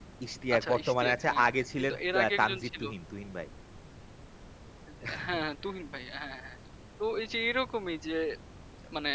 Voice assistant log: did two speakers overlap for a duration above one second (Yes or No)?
Yes